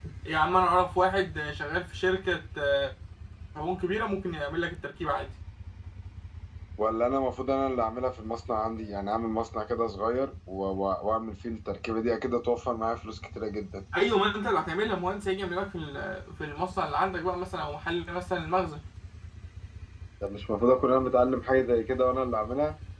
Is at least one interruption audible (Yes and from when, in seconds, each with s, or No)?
No